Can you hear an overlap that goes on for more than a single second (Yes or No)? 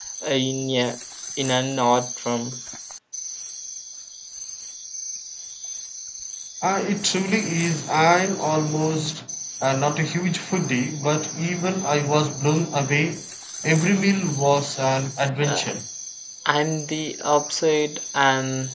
No